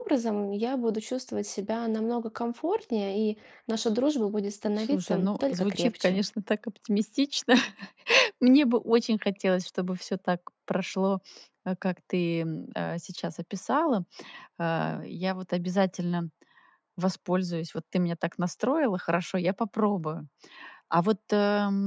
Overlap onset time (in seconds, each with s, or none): 4.8 s